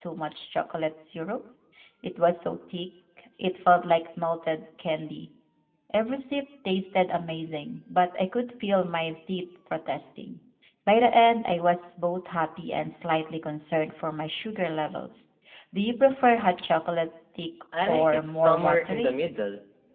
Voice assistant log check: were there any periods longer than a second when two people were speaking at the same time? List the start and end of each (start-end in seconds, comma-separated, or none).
17.9-19.2